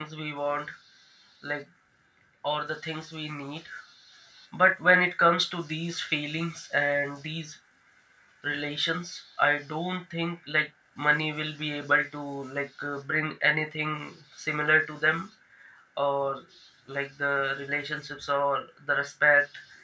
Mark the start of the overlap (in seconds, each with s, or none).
none